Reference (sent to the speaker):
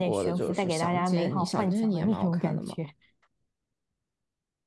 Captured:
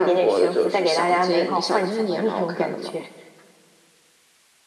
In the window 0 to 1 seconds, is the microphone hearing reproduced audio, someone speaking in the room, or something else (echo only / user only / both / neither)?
echo only